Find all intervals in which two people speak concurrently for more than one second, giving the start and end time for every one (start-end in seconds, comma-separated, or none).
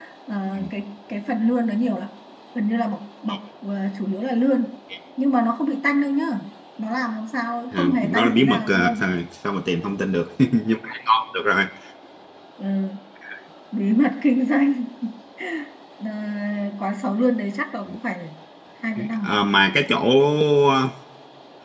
7.7-9.0